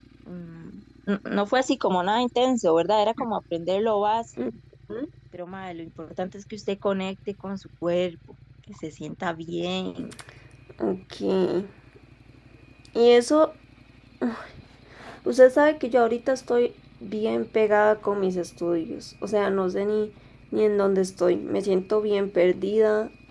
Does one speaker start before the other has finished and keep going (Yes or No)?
No